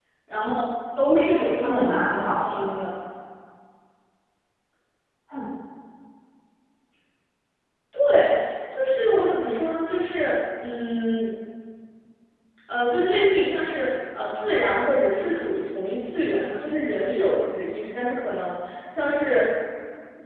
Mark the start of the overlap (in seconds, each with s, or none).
1.1 s